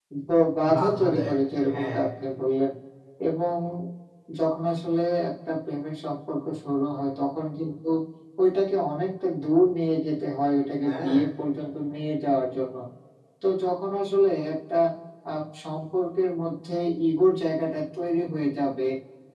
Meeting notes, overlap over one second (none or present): present